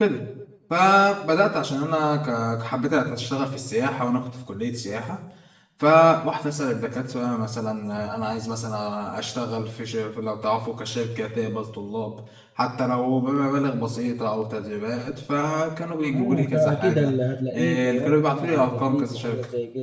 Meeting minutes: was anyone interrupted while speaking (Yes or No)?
Yes